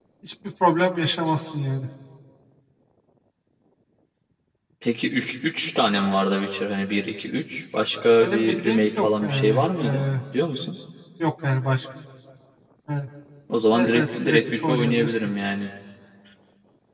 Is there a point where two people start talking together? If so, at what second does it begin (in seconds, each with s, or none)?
8.2 s